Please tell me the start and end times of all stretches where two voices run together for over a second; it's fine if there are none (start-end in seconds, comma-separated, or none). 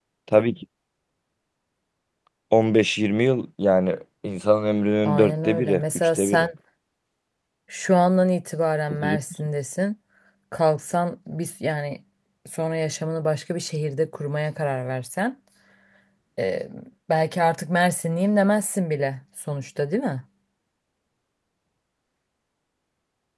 5.0-6.5